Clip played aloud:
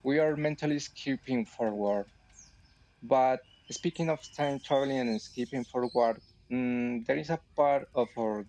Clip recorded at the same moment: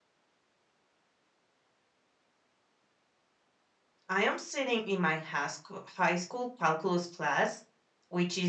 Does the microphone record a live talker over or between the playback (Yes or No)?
Yes